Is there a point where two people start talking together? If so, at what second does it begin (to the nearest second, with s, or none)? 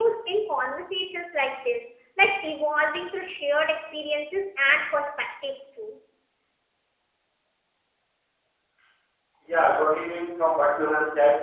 none